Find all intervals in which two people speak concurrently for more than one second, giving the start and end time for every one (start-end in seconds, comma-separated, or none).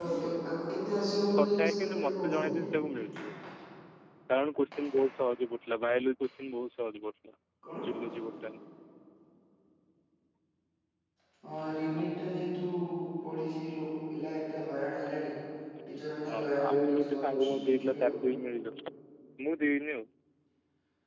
1.4-2.6, 16.3-18.1